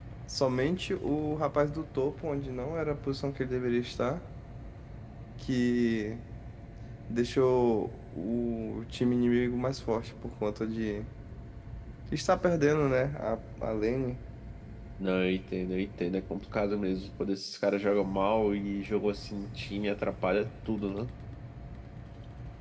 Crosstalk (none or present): none